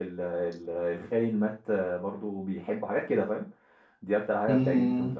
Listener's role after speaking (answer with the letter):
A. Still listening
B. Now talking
B